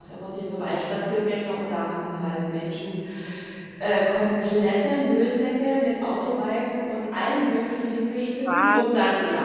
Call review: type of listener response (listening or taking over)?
listening